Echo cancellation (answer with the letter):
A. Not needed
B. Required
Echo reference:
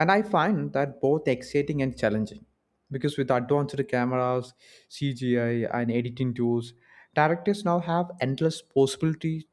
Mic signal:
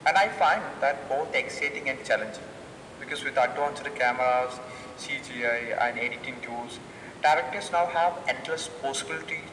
B